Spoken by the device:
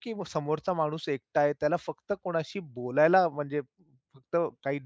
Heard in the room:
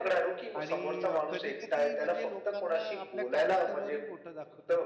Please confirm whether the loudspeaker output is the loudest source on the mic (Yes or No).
Yes